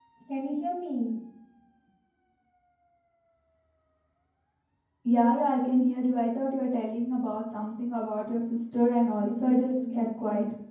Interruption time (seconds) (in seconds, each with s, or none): 9.2 s